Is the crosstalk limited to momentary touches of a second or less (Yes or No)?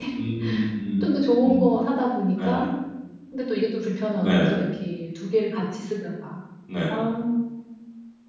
Yes